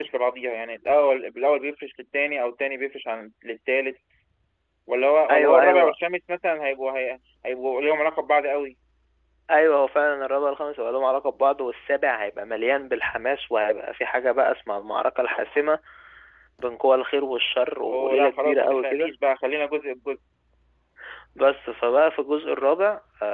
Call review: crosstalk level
present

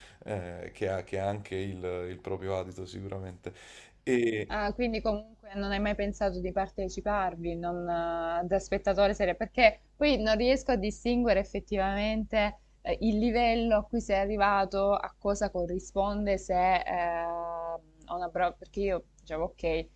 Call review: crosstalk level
none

